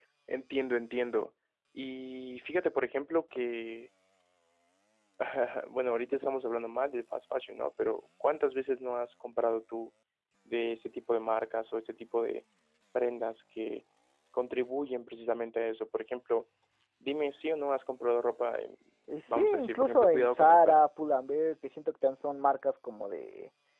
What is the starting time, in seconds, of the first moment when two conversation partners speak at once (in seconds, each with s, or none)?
19.3 s